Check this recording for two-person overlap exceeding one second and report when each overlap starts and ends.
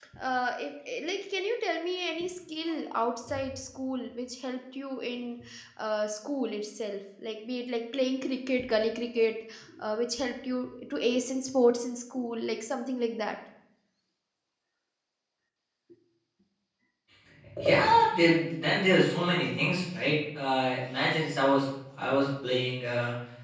none

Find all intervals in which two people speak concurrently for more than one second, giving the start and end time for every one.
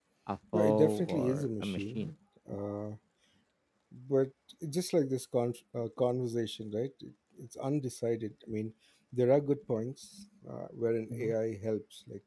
0.5-2.1

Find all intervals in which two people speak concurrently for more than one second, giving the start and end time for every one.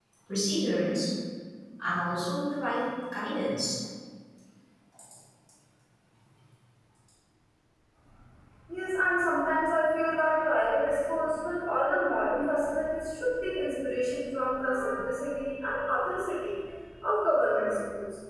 none

